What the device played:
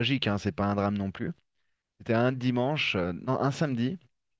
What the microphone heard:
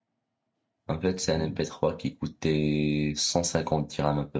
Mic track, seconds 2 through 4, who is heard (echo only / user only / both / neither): user only